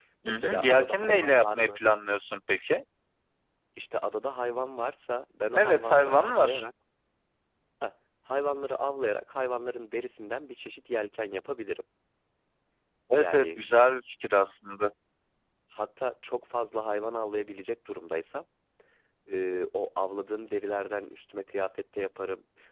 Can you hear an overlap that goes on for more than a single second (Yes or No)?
Yes